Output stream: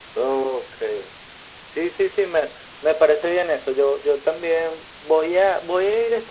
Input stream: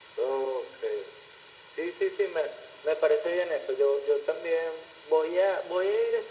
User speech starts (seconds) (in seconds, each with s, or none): none